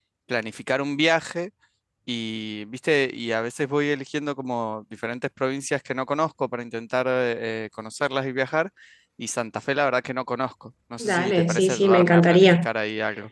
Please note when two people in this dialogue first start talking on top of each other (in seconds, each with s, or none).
11.0 s